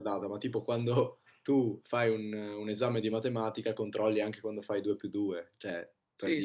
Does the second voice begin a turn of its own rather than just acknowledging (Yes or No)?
Yes